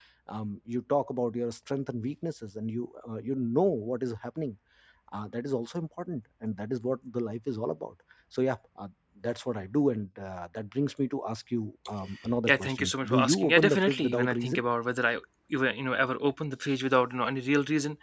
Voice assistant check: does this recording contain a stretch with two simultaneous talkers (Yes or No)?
Yes